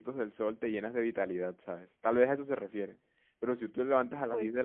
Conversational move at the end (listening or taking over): listening